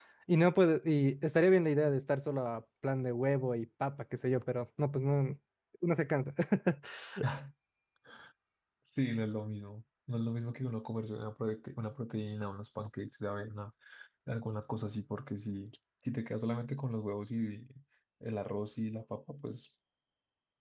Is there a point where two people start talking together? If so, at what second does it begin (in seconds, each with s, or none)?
none